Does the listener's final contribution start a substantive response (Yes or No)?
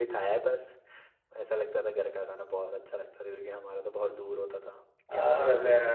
Yes